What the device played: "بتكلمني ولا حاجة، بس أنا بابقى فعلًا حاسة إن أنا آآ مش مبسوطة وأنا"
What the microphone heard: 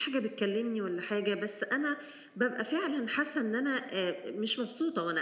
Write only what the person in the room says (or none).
none